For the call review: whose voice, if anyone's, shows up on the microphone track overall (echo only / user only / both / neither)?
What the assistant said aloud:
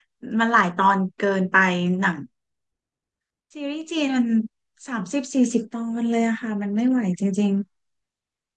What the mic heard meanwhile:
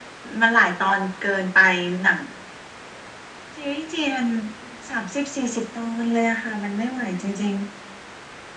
echo only